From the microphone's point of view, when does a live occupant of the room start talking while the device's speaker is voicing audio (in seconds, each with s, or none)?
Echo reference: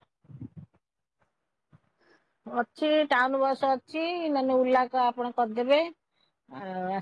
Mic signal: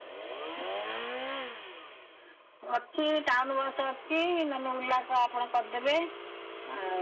none